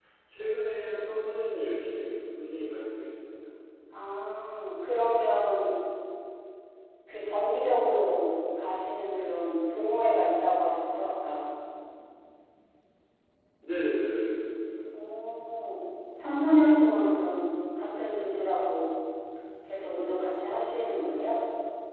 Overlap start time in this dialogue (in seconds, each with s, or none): none